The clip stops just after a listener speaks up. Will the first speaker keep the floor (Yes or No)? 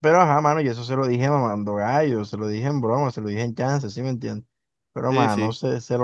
Yes